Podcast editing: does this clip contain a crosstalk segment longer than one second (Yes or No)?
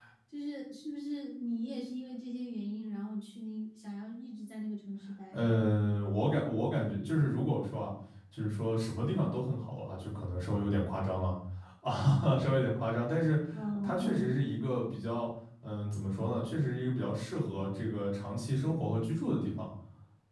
No